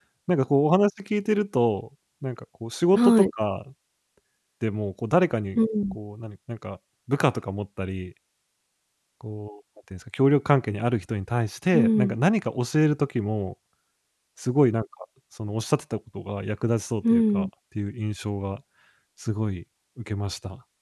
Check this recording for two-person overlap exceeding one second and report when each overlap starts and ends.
none

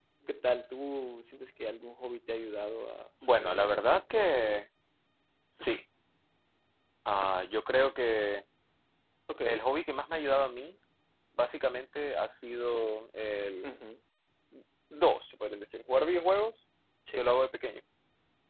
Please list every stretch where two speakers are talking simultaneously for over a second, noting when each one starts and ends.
3.4-4.6

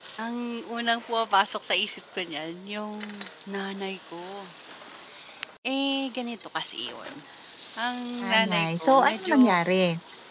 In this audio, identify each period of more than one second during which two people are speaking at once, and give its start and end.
8.2-9.6

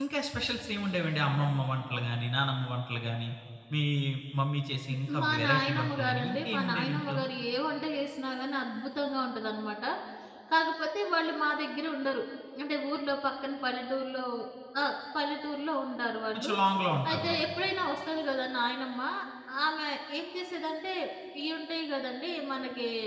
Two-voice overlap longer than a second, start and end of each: 5.2-7.2

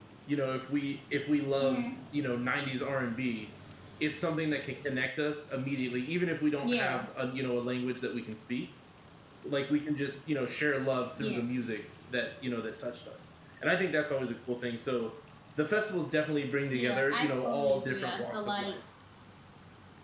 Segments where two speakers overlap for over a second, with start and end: 16.7-18.8

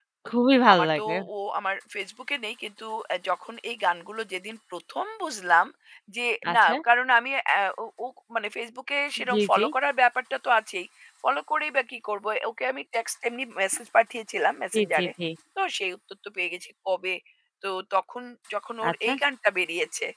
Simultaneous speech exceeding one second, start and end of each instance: none

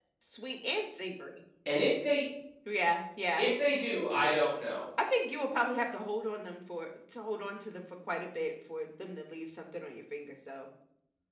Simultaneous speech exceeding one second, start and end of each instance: none

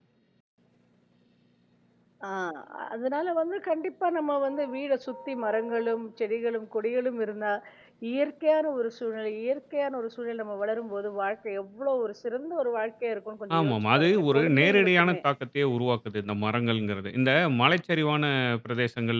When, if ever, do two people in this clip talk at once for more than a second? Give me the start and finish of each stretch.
13.6-15.2

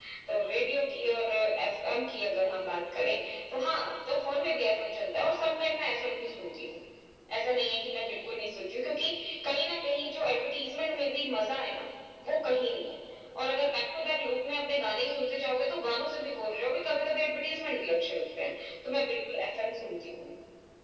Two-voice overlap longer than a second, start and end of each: none

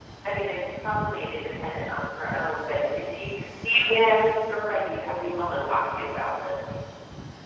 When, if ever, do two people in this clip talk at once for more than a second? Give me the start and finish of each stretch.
4.8-6.0

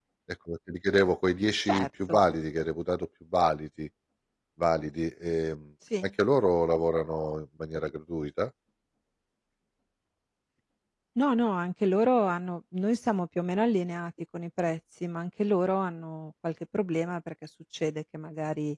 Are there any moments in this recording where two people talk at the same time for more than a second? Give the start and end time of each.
none

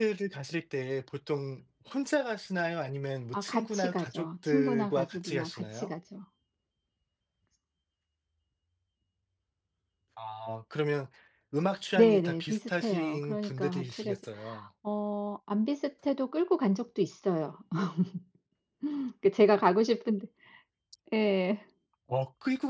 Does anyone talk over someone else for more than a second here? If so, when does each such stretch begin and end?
3.3-5.9, 12.0-14.2

